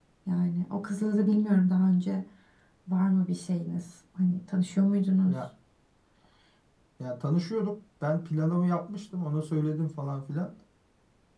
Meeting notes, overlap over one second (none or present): none